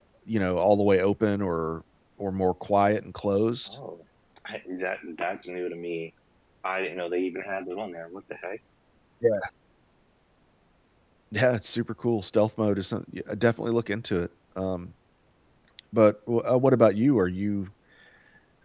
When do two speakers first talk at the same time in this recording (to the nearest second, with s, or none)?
none